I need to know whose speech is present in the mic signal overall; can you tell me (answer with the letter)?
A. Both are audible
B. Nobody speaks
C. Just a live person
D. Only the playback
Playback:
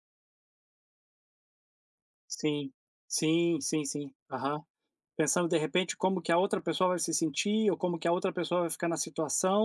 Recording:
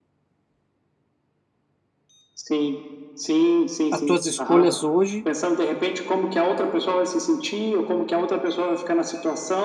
A